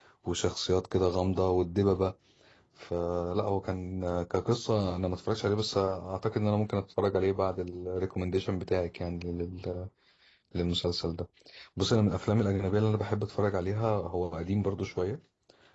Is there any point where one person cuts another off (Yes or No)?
No